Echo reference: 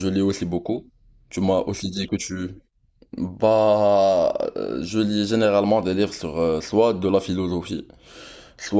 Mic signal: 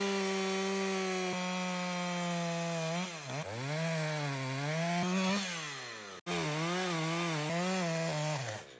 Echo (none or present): none